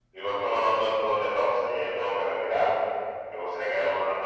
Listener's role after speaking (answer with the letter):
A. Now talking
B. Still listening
B